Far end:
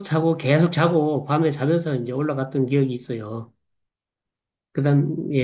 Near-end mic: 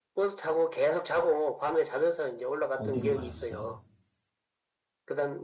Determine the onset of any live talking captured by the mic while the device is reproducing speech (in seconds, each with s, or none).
2.7 s